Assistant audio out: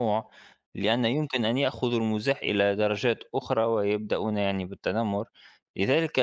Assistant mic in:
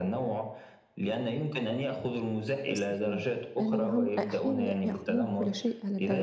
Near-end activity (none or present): present